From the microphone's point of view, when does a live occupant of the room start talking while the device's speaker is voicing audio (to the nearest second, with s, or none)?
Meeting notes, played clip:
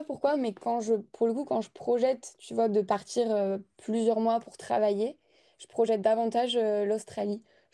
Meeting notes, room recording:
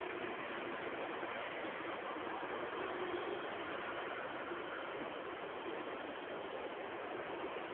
none